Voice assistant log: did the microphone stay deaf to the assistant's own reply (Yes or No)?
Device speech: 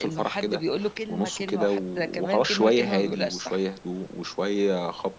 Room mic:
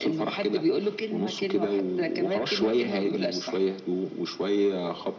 No